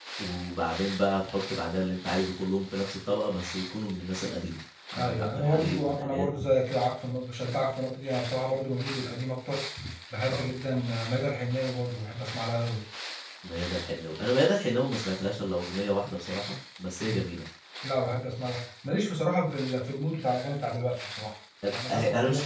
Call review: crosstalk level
present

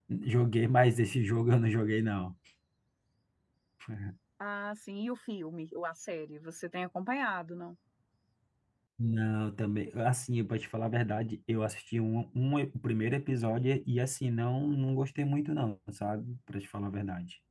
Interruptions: none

